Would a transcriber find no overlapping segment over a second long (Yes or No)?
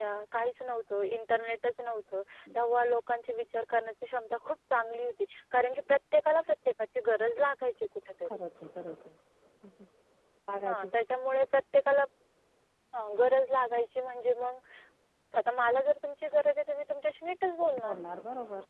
Yes